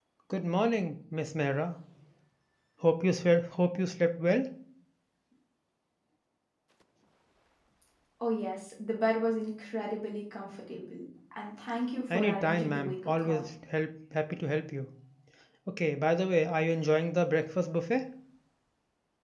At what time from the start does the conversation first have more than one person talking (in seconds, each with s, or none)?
12.1 s